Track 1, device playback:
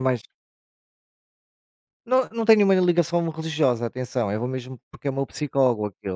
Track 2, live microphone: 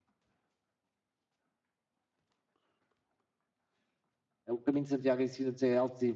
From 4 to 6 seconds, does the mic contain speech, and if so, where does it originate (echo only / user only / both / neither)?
user only